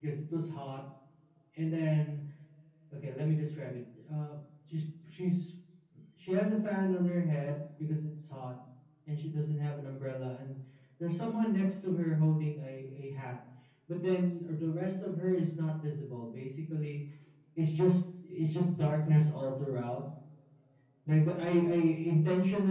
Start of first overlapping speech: none

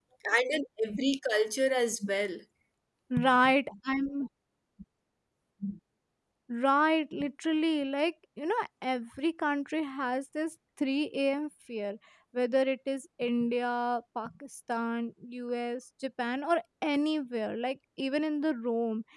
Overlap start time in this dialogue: none

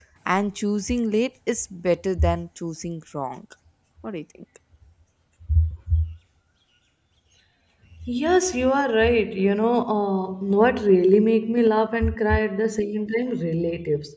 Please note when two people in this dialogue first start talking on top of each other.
none

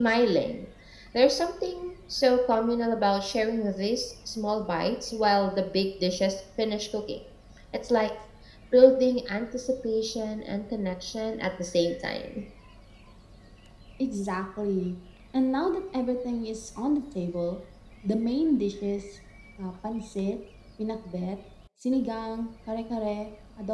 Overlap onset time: none

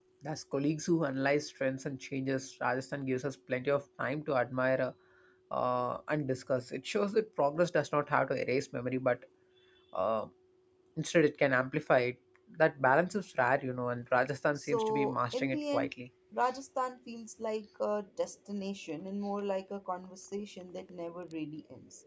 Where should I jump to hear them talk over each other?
15 s

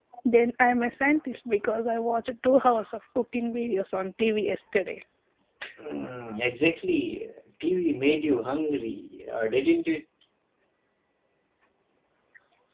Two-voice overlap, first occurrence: none

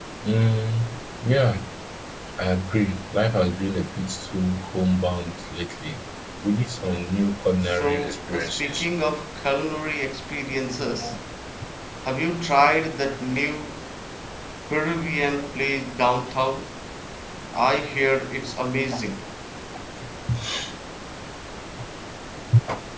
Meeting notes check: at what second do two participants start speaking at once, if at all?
8 s

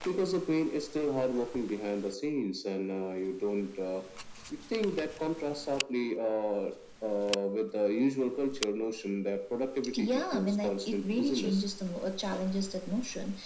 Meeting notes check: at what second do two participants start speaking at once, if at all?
10 s

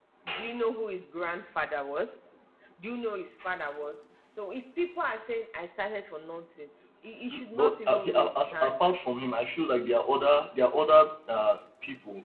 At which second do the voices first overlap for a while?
7 s

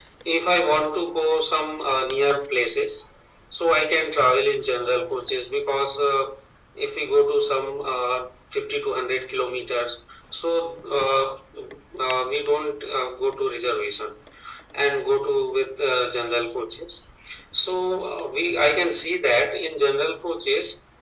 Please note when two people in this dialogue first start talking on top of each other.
none

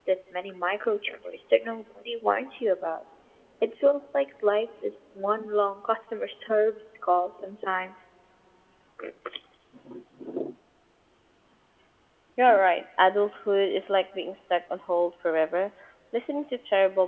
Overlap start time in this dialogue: none

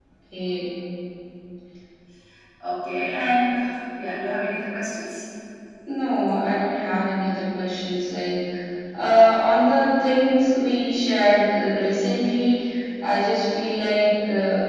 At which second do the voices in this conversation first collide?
none

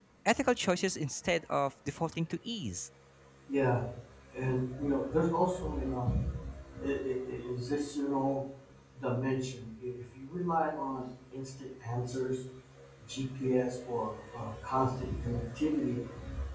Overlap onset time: none

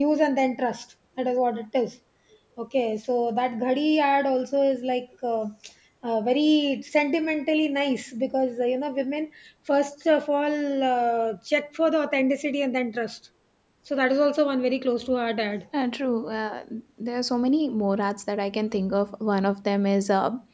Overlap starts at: none

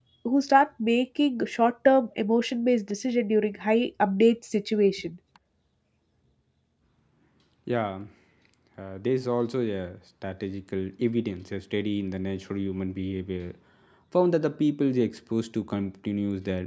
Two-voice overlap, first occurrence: none

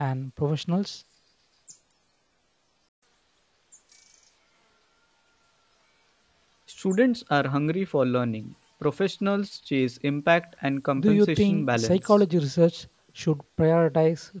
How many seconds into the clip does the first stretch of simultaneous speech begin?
11 s

